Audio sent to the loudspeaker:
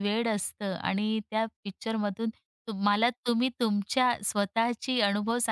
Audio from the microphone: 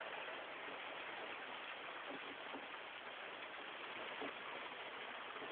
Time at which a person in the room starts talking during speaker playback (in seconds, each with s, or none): none